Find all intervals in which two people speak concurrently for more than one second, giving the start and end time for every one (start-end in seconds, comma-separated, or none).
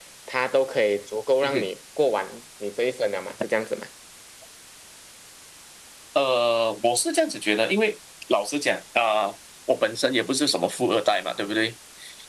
none